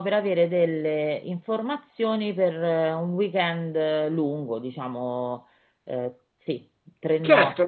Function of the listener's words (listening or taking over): taking over